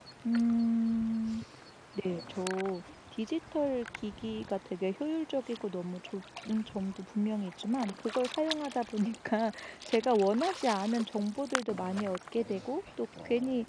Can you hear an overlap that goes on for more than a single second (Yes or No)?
No